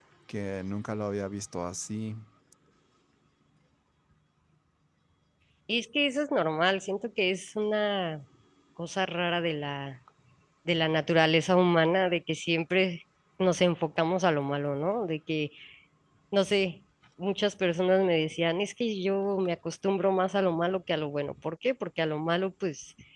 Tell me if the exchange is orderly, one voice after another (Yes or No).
Yes